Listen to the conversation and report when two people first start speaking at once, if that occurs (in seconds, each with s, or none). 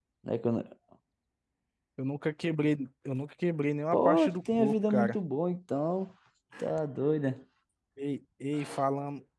3.9 s